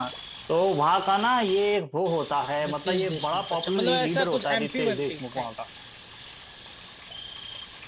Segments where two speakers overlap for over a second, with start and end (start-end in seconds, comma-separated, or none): 2.7-5.2